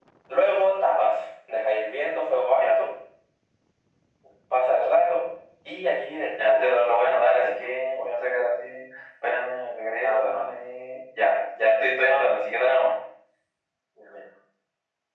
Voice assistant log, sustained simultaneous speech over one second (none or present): present